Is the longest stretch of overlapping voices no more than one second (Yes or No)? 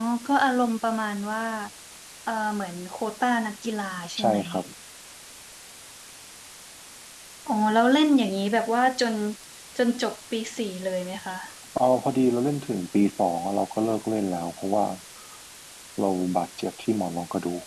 Yes